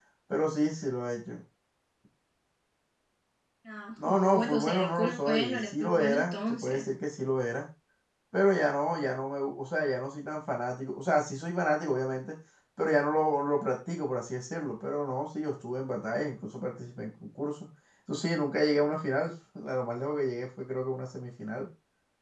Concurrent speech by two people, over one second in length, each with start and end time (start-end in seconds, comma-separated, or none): 4.0-6.8